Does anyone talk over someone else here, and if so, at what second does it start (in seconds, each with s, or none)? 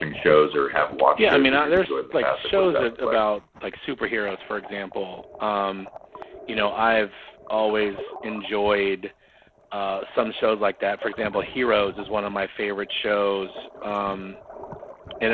1.2 s